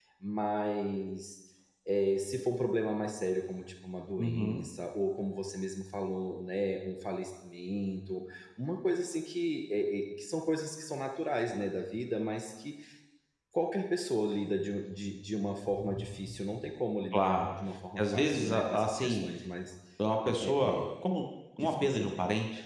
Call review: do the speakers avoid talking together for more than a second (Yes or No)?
No